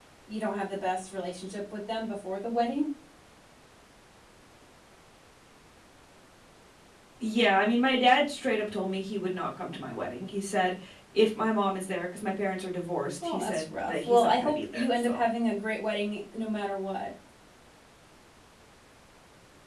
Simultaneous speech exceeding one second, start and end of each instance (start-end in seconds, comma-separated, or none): 13.2-15.2